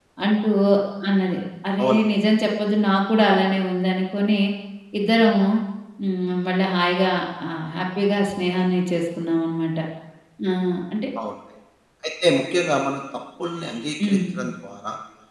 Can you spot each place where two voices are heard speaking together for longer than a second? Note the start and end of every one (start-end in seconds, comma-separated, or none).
none